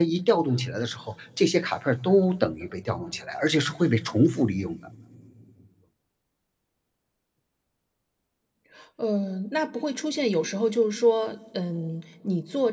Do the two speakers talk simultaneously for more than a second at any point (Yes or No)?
No